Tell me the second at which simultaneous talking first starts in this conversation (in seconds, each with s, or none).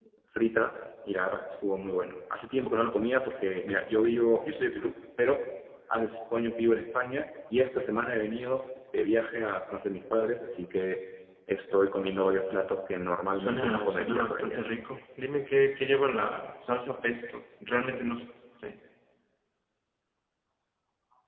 13.4 s